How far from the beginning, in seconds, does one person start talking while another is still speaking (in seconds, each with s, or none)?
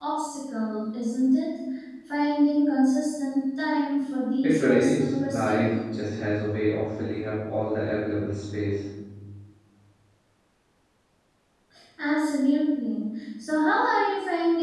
4.4 s